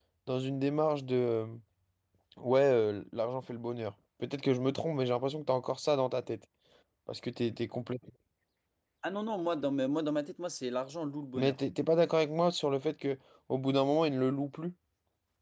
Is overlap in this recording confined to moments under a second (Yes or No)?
Yes